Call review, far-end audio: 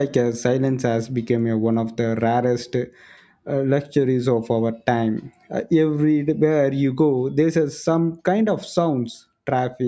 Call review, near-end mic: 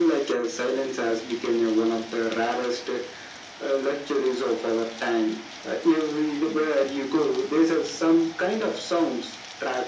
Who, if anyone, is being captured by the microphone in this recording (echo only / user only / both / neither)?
echo only